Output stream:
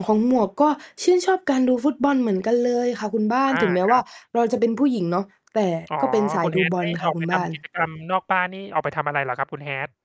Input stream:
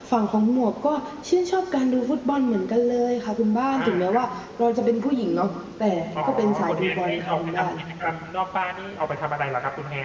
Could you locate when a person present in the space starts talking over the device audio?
none

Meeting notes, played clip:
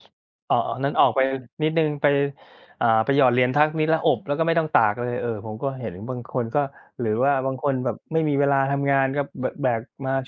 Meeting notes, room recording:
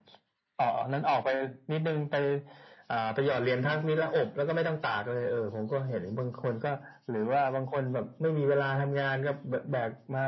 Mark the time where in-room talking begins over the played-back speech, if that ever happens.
none

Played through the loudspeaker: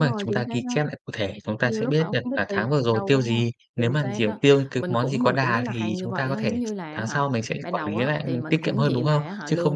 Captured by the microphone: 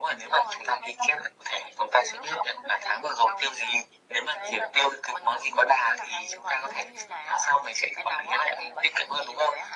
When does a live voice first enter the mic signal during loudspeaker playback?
none

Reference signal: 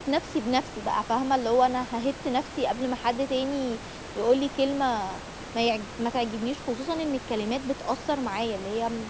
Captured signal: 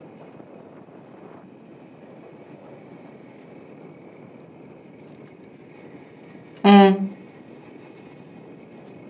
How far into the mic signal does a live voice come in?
6.6 s

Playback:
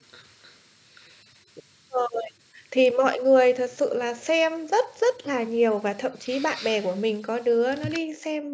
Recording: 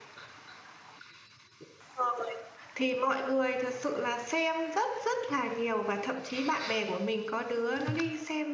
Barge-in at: none

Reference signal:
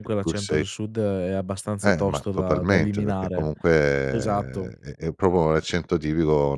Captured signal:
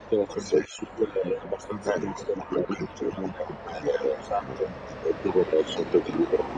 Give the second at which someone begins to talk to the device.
none

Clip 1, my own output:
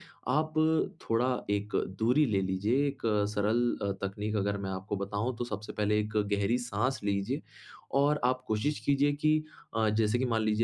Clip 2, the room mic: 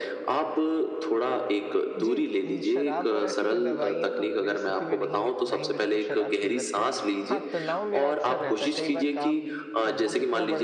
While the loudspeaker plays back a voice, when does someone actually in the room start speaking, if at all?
2.0 s

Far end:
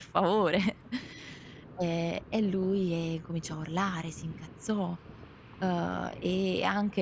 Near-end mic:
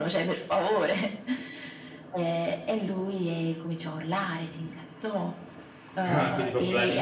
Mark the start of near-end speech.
6.0 s

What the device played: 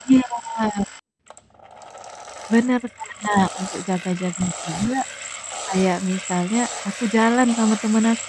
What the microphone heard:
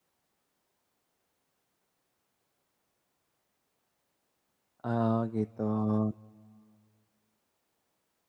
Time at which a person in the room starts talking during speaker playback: 4.8 s

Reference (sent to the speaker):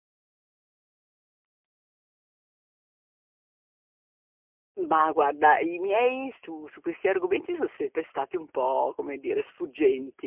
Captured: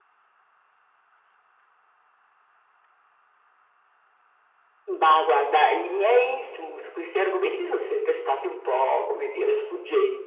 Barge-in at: none

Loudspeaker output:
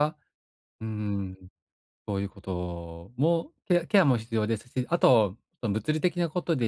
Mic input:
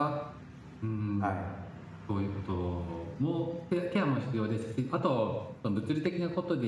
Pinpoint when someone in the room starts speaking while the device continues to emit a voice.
1.2 s

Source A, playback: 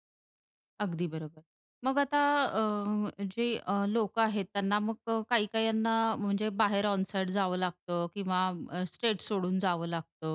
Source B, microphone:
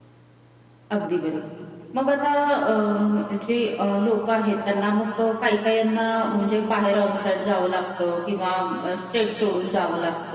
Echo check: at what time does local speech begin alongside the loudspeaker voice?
none

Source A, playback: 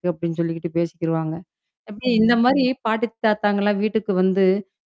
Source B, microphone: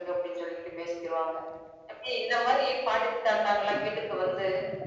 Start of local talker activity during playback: none

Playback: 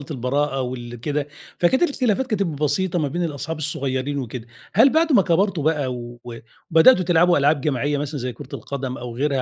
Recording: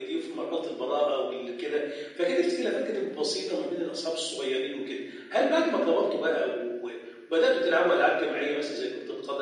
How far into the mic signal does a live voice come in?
none

